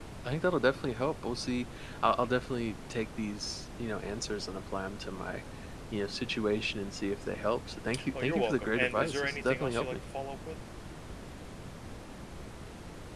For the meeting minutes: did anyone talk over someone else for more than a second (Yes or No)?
Yes